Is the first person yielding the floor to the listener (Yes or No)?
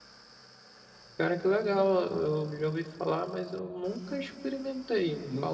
Yes